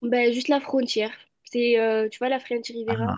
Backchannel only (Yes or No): Yes